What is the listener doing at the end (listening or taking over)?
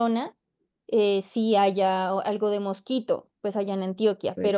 listening